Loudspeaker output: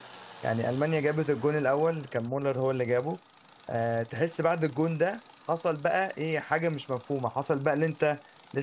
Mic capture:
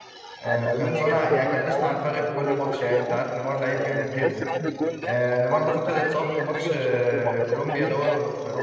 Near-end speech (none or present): present